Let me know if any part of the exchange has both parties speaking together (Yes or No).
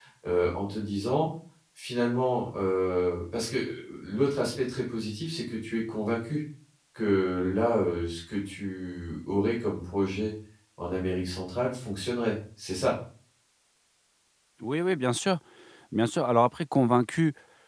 No